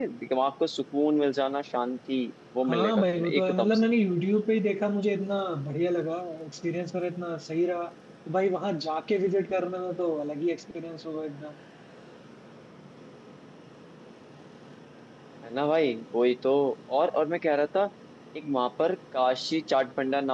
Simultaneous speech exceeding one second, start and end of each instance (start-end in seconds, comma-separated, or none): 2.6-3.9